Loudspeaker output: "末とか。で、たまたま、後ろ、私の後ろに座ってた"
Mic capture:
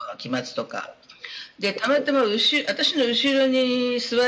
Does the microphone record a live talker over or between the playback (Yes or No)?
No